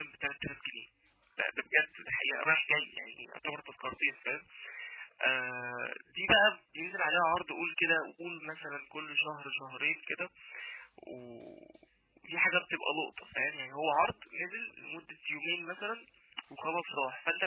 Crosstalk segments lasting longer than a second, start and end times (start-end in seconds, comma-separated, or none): none